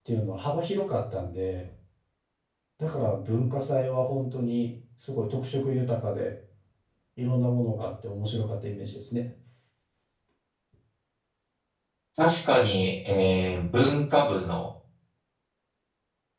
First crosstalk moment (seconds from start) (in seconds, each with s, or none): none